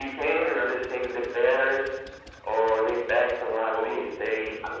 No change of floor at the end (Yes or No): No